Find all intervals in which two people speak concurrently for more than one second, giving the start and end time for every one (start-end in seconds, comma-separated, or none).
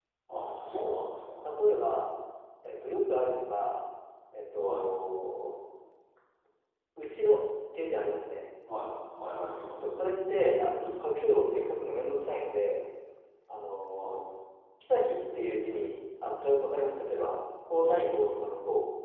none